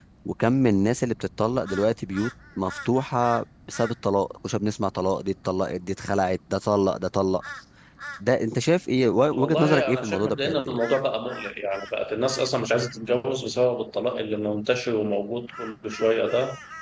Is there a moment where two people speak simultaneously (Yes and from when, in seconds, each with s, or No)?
Yes, from 9.3 s